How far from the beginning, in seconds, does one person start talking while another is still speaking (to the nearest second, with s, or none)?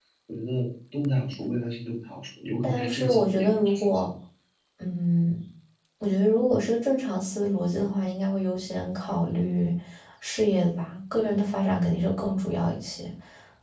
3 s